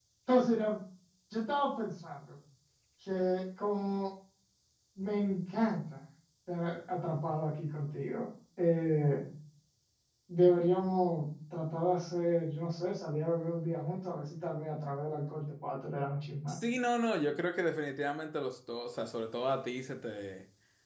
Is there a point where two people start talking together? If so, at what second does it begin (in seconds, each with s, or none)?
none